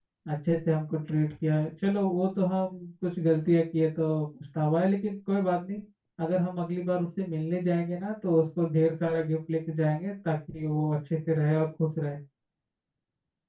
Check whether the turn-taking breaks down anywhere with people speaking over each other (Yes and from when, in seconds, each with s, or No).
No